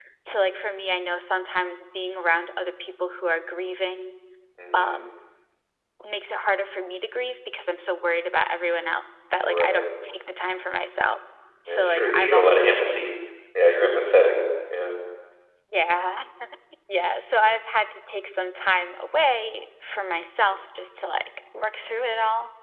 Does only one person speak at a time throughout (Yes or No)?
No